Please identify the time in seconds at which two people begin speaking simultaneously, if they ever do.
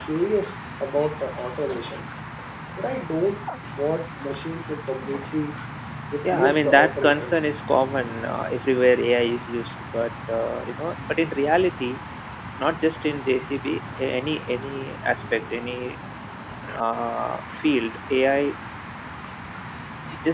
6.2 s

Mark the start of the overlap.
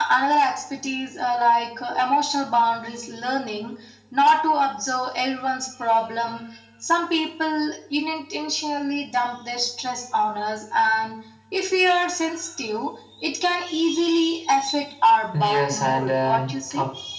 15.3 s

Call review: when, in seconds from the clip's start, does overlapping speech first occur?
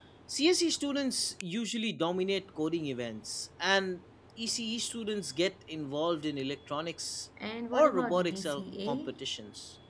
7.7 s

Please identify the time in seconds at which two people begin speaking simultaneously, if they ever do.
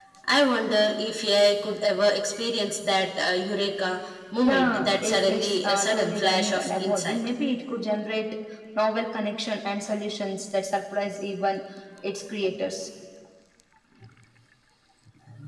4.4 s

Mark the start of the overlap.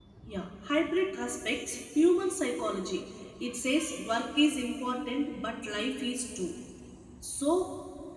none

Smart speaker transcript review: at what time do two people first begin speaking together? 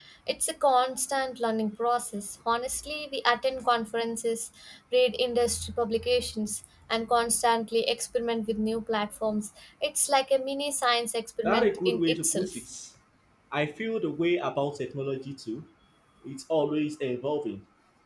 11.4 s

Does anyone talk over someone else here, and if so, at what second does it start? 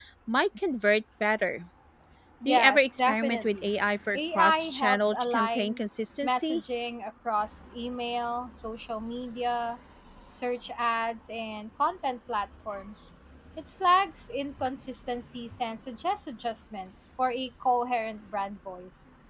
2.5 s

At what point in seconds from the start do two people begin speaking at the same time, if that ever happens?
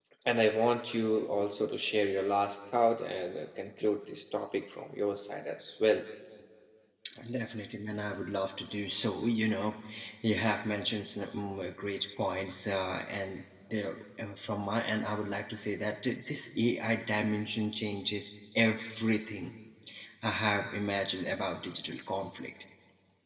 none

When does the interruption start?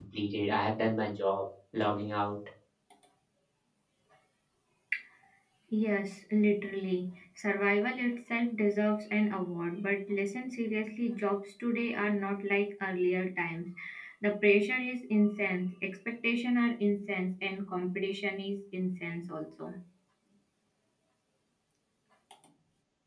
none

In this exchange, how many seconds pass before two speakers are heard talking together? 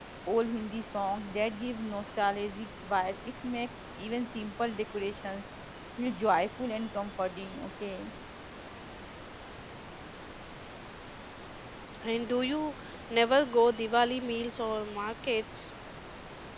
none

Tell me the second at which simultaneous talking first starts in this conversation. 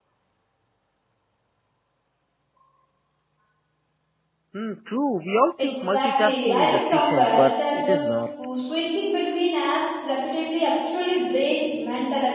5.6 s

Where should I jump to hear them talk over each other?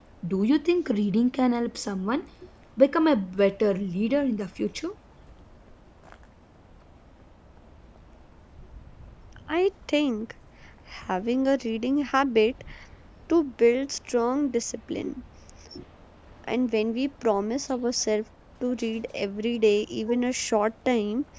none

